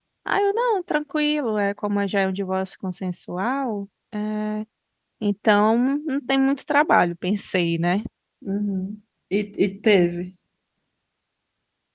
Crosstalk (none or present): none